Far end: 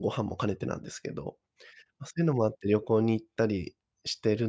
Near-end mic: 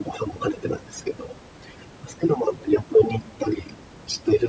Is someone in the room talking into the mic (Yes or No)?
No